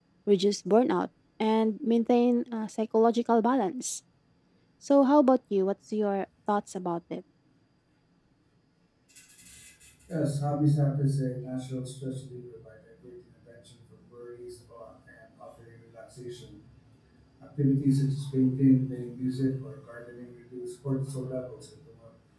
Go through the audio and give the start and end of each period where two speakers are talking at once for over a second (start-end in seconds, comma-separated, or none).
none